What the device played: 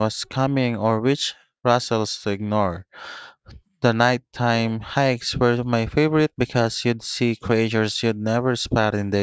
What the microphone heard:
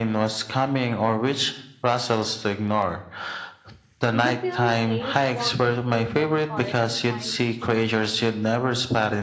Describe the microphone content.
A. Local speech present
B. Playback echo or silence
A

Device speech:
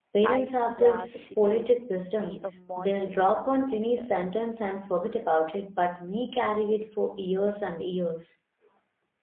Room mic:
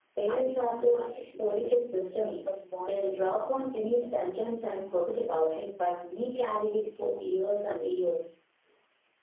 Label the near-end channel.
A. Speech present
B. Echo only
B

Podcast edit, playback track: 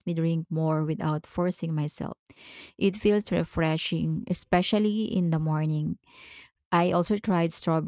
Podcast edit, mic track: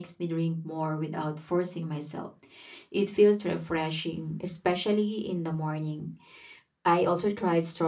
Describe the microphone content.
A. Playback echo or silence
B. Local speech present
A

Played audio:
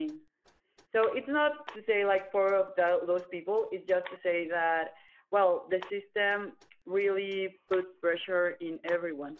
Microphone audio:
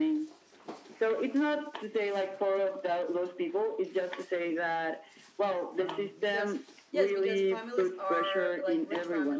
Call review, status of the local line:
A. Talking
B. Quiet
A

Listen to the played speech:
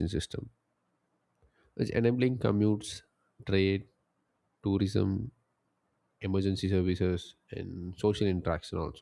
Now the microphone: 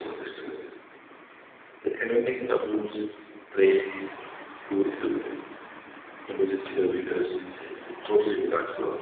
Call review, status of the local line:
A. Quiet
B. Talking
A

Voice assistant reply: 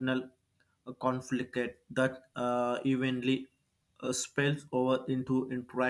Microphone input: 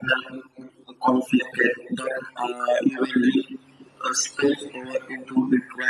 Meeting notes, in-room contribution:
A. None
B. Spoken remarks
A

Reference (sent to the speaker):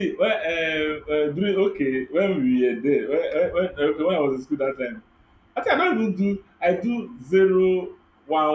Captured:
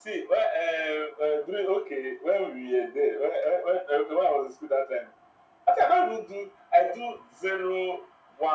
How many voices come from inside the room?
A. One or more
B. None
B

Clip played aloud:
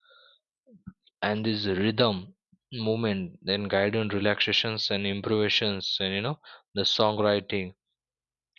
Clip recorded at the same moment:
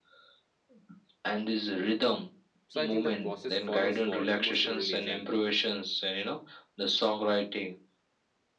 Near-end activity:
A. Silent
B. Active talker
B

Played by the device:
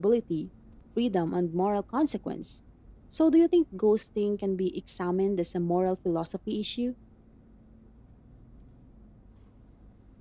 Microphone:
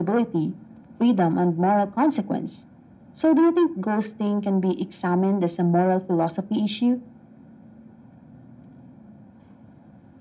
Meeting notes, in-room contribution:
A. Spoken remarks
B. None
B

